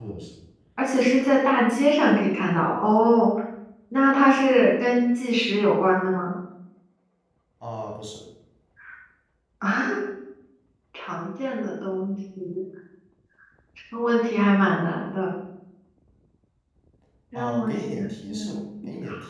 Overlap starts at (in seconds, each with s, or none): 17.4 s